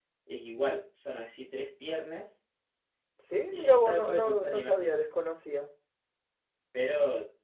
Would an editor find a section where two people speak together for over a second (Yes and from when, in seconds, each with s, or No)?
Yes, from 3.5 s